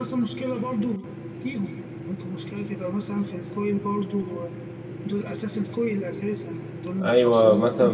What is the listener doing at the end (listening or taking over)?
taking over